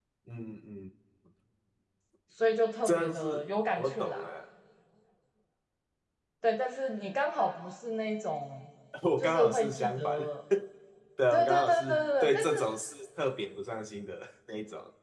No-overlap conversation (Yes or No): No